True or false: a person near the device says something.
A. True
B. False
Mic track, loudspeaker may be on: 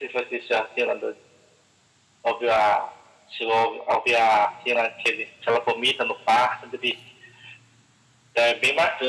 B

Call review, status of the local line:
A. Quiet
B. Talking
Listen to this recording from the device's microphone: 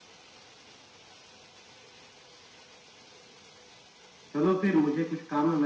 B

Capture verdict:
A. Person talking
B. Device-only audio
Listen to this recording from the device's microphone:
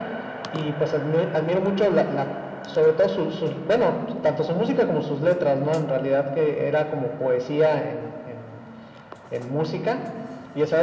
B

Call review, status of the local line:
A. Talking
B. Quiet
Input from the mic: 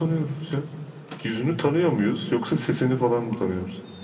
B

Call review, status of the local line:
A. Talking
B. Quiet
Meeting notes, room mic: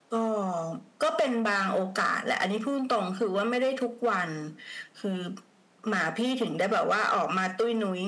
B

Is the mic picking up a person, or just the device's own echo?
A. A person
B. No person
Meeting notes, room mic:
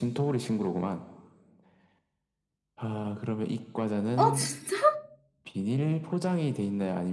A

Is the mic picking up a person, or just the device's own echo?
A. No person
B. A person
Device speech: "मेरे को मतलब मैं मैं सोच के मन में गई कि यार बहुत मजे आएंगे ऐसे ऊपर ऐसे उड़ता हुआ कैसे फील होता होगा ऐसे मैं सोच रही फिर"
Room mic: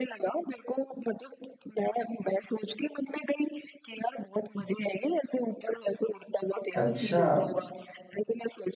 B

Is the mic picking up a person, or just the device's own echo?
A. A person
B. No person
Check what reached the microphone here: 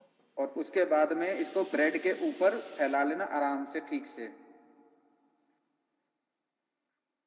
B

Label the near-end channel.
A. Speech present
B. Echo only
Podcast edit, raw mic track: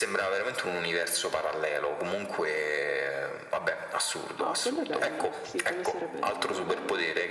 A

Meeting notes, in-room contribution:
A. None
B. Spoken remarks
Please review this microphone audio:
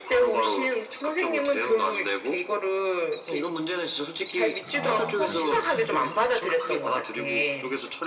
B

